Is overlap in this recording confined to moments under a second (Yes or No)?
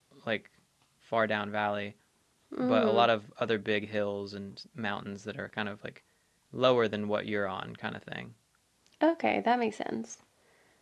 Yes